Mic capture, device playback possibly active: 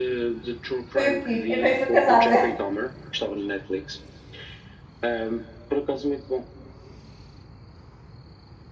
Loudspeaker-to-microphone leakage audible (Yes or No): Yes